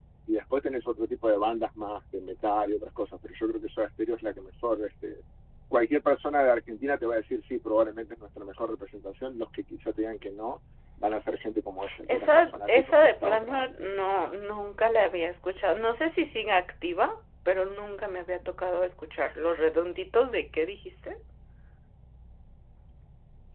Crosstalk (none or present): present